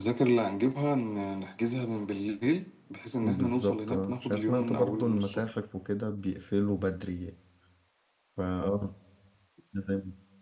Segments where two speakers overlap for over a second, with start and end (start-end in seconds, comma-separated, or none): 3.2-5.4